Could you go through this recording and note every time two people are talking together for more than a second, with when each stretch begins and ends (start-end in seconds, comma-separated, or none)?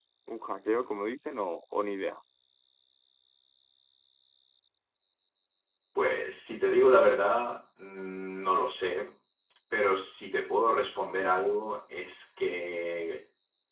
none